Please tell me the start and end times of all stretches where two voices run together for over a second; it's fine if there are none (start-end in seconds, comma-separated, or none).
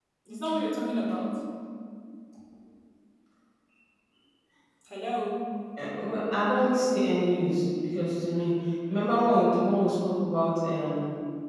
none